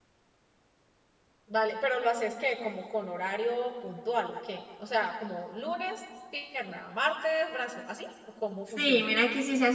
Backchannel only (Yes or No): No